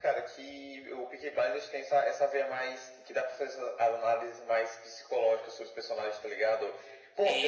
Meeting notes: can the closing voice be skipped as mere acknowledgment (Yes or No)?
Yes